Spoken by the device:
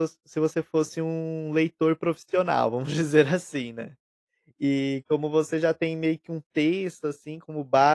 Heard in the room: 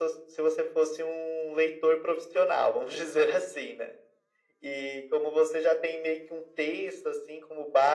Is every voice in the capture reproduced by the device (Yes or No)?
Yes